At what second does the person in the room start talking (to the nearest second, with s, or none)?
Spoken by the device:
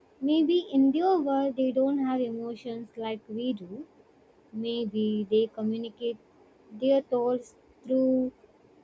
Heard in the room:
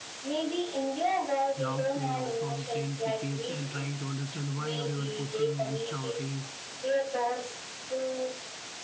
2 s